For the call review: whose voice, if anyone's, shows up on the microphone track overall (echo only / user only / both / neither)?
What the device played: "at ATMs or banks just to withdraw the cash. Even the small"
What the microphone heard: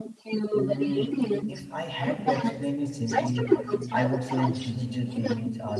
both